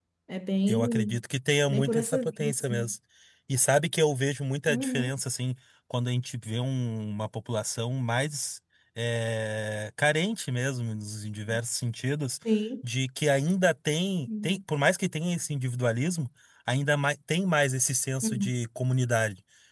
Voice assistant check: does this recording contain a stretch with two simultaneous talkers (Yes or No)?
Yes